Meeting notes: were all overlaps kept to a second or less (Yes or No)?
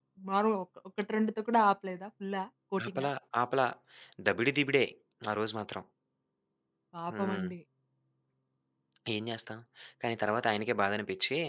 Yes